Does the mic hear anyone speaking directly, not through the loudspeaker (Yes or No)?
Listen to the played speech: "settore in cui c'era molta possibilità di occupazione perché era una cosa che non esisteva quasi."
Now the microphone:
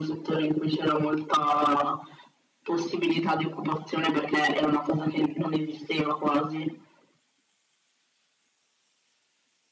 No